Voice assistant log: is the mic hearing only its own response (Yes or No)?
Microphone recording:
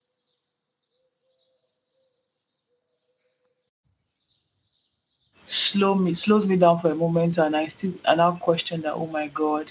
No